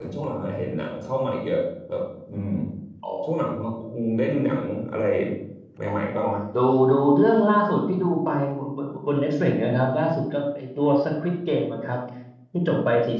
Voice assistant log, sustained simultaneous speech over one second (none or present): none